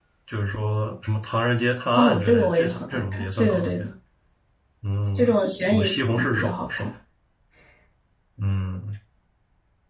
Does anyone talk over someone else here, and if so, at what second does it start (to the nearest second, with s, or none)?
2 s